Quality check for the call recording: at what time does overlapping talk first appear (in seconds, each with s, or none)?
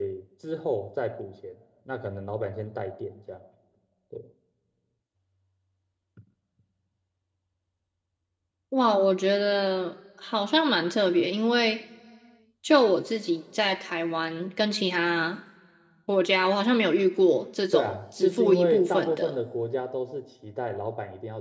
17.7 s